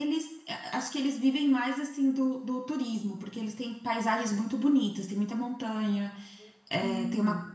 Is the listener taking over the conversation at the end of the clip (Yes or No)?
No